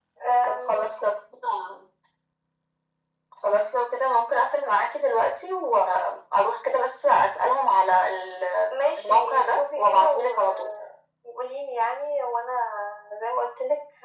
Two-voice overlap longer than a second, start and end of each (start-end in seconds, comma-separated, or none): 8.7-10.7